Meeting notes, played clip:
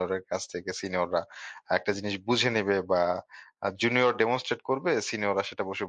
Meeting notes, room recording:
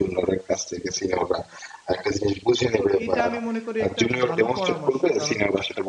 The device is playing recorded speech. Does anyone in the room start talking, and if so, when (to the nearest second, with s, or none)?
3 s